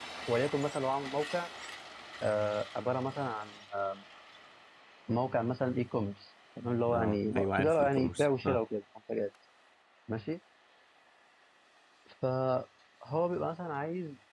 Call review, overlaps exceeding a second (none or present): present